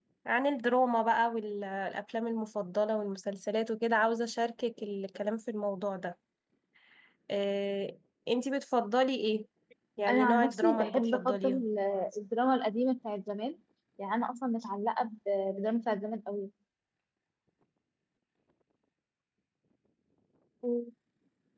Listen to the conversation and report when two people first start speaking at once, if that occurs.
10.1 s

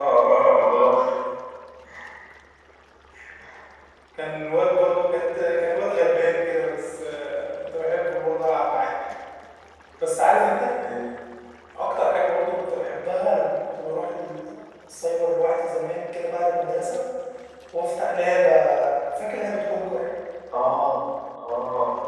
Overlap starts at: none

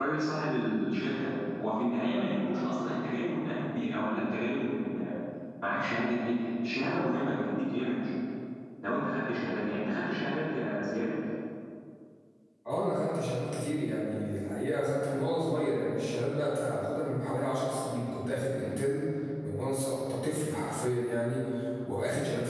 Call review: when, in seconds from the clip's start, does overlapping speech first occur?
none

